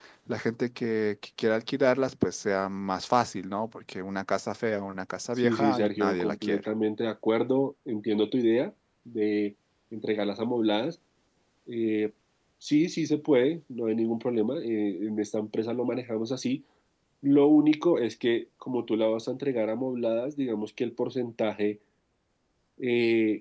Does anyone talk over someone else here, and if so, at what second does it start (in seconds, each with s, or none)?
5.4 s